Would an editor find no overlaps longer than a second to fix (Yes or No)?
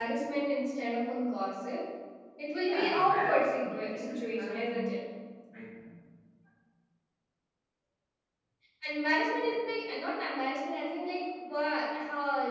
No